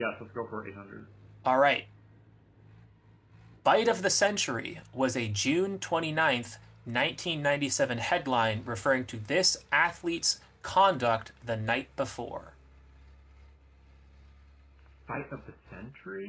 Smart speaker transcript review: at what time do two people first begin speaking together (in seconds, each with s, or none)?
none